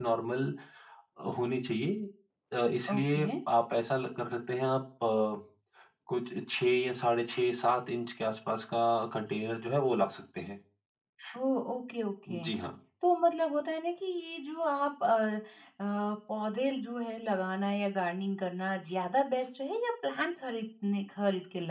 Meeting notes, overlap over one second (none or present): none